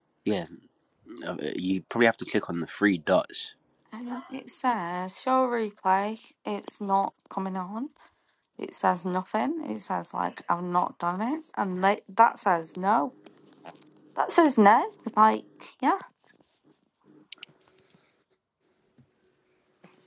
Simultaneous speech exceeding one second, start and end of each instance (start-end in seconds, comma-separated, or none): none